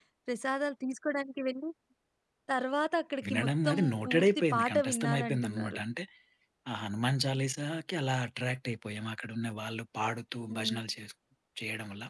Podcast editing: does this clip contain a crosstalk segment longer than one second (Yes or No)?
Yes